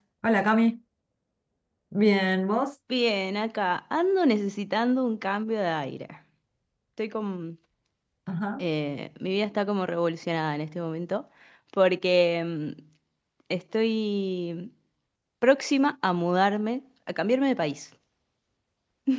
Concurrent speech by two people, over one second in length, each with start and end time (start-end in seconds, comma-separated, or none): none